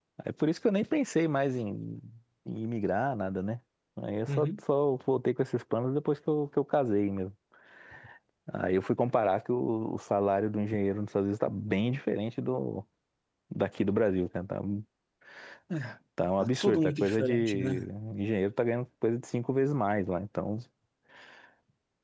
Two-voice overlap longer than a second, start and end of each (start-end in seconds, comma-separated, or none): 16.4-17.8